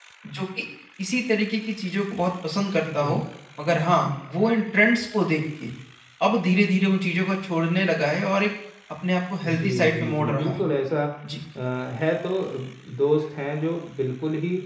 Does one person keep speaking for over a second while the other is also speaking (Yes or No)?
Yes